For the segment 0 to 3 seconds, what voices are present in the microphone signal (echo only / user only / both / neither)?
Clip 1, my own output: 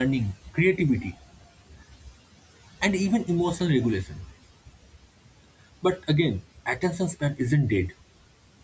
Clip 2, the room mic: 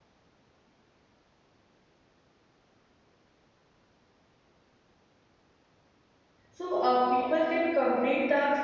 neither